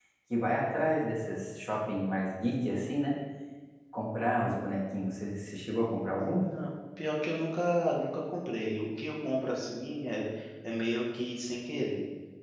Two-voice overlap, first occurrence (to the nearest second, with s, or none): none